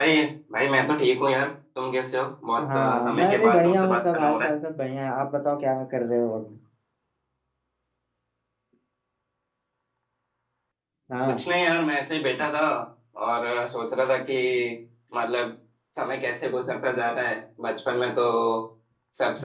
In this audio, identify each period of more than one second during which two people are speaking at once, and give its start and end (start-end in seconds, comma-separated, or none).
2.6-4.5